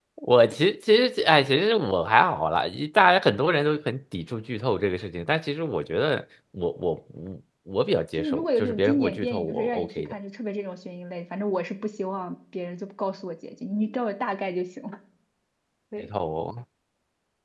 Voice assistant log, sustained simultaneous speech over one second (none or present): present